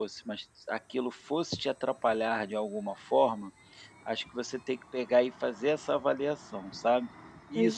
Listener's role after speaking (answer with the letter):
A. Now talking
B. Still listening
B